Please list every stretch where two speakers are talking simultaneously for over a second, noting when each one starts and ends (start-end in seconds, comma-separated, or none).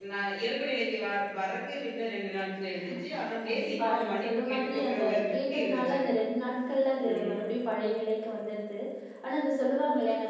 3.5-6.0